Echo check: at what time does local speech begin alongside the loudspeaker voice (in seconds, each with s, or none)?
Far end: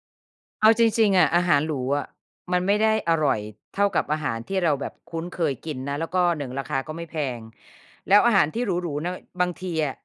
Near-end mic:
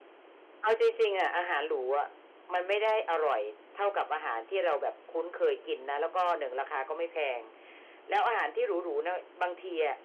none